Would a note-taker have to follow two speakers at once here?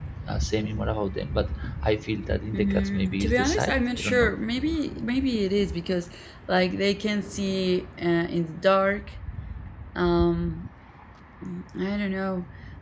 Yes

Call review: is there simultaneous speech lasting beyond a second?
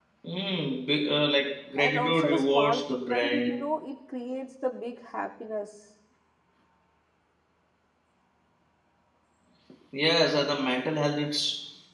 Yes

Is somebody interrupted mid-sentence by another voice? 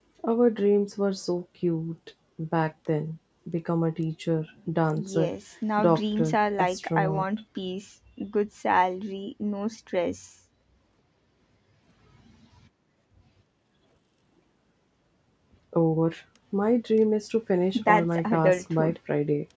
Yes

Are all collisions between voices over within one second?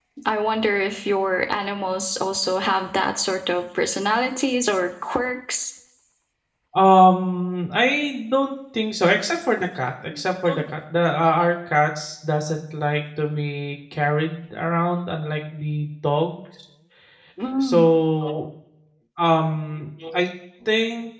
Yes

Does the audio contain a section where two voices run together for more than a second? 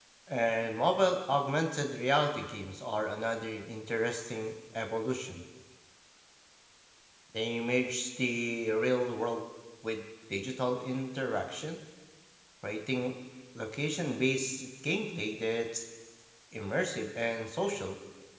No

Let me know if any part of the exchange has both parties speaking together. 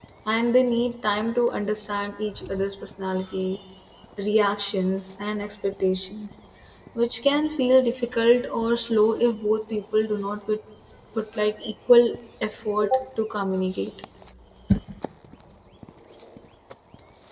No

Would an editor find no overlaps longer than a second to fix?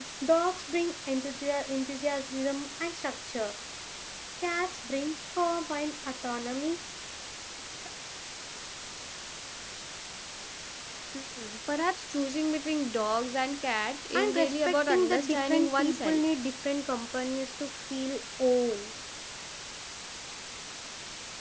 No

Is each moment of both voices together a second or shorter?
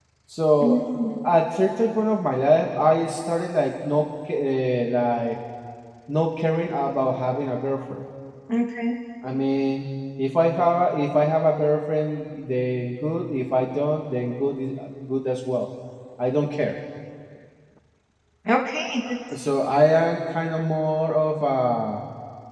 Yes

